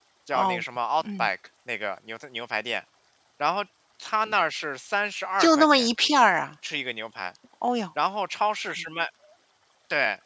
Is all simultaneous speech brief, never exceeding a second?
Yes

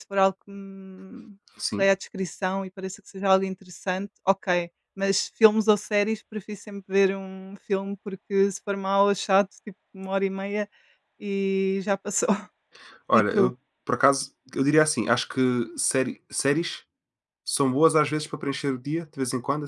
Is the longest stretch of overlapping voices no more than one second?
Yes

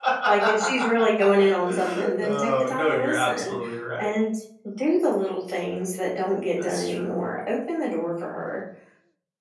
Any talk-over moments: Yes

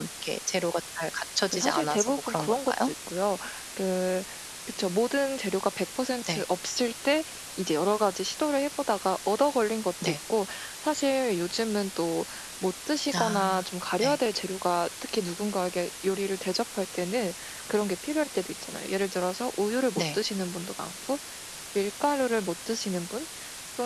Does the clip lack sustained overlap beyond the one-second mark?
No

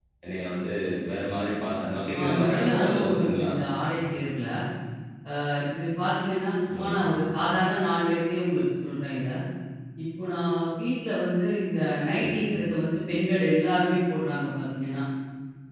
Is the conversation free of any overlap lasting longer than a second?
No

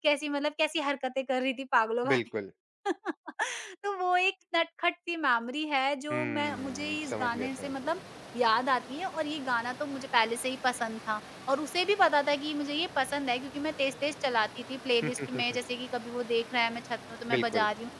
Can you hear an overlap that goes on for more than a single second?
Yes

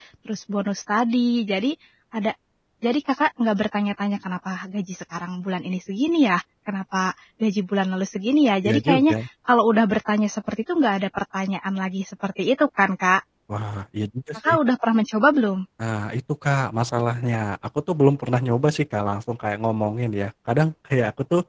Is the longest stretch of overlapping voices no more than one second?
Yes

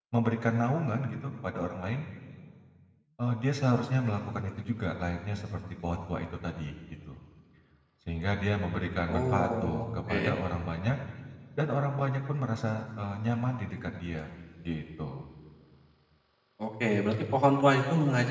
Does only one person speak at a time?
No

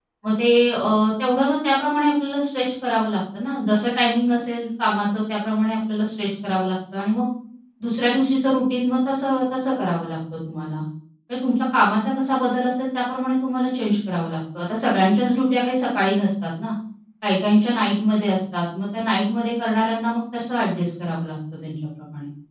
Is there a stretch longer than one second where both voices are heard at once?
No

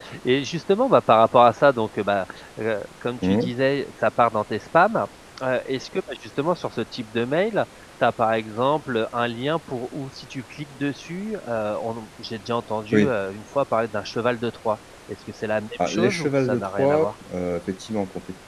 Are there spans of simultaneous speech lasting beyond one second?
Yes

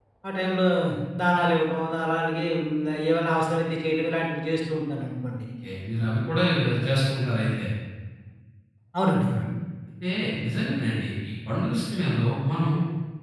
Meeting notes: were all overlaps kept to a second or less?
Yes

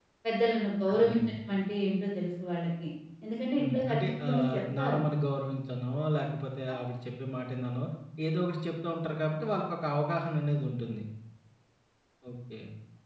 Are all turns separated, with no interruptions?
No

